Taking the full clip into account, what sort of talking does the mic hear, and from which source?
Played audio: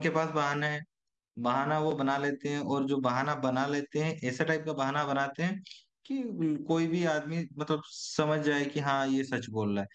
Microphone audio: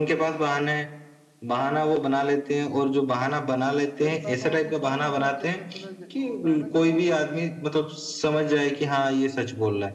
both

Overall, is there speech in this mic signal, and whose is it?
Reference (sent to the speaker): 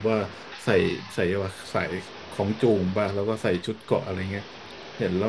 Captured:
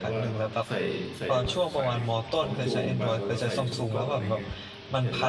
both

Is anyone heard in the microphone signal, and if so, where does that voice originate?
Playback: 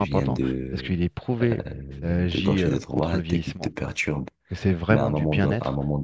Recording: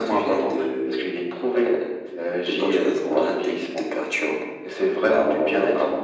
echo only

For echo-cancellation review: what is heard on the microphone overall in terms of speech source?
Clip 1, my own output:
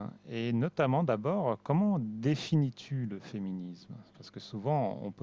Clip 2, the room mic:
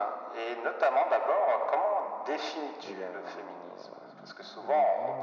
both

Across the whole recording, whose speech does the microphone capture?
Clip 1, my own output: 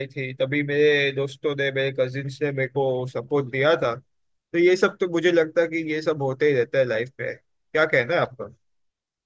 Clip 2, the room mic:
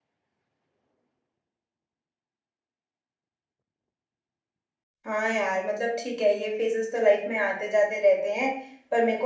user only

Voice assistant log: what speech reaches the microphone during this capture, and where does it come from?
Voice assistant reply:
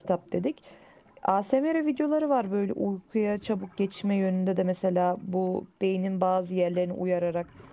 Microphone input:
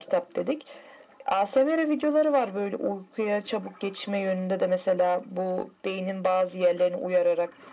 echo only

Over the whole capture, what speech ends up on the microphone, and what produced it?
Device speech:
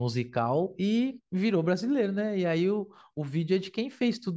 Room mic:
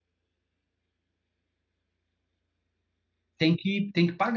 user only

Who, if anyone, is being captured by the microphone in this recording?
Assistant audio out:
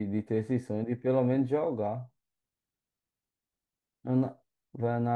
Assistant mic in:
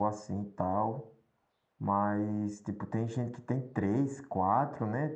user only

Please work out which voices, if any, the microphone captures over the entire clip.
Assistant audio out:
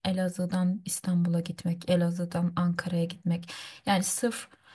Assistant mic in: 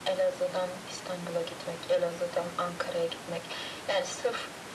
echo only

